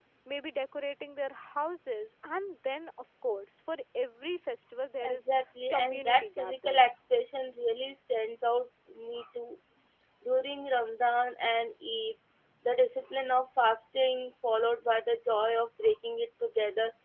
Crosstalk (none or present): present